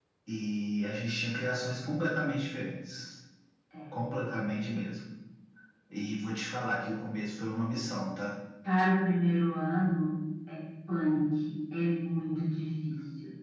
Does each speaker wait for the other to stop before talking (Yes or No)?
Yes